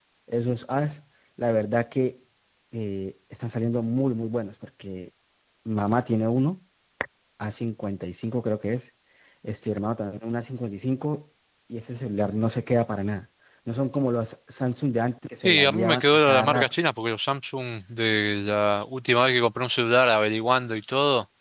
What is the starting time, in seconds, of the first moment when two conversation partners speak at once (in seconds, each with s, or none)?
15.4 s